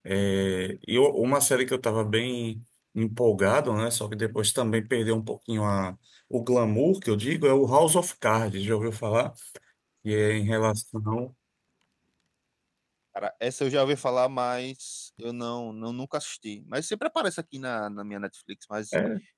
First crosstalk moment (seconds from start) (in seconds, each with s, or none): none